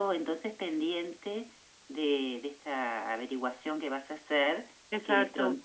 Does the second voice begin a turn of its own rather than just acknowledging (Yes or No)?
No